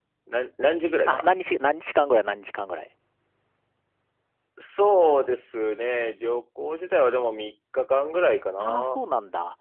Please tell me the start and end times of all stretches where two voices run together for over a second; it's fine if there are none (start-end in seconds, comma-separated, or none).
none